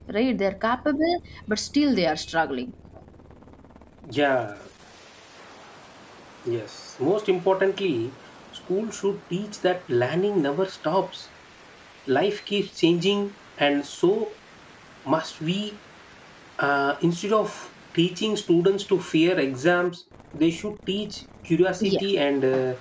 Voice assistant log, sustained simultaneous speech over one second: none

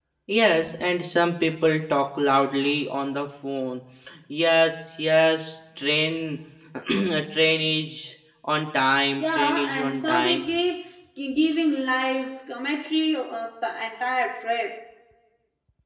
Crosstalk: present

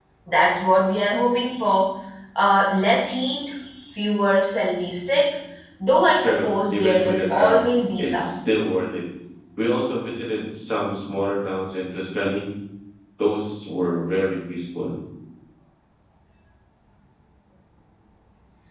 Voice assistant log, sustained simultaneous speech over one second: present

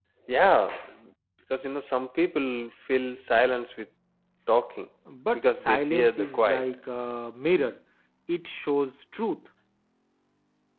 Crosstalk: present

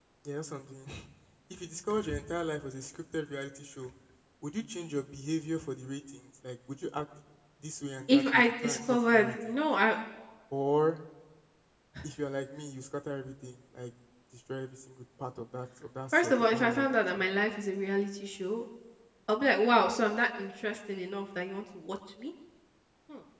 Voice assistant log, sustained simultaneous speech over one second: present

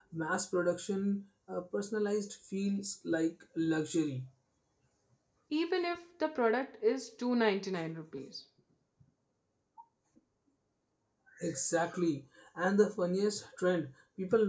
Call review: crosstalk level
none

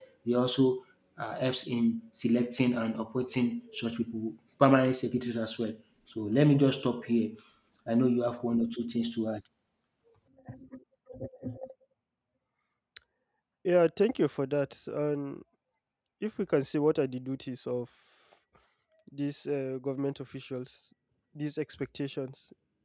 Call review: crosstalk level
none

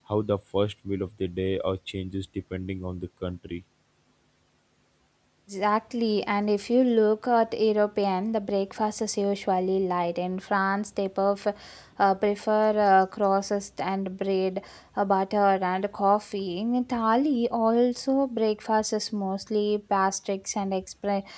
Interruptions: none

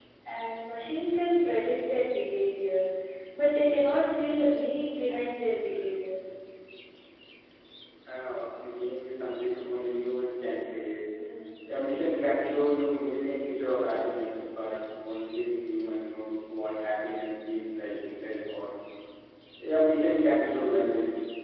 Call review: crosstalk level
none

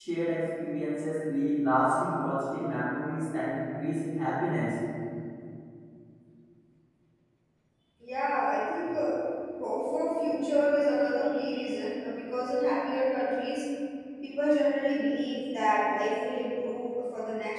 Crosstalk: none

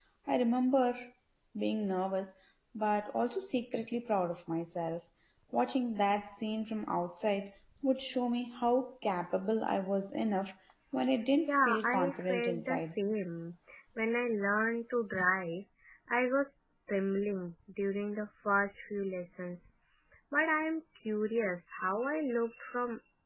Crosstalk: present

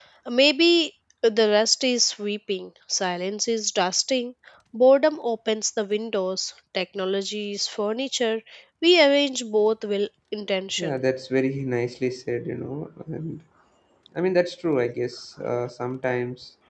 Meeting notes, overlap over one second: none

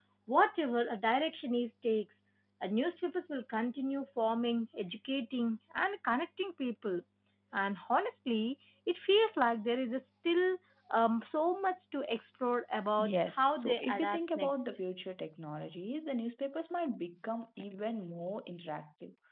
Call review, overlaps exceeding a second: present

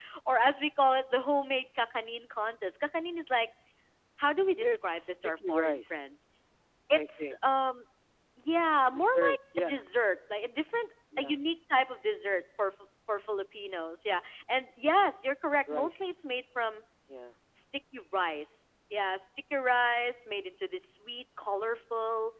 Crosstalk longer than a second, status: present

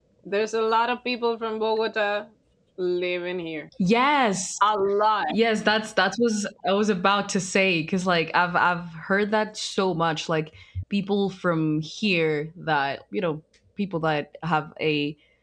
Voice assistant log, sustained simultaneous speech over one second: none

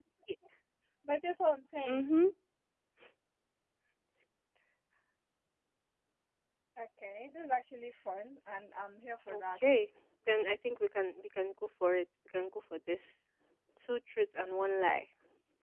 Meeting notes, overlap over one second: none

